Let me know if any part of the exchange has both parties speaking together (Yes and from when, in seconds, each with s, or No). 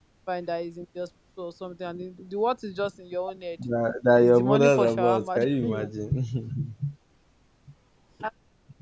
Yes, from 4.2 s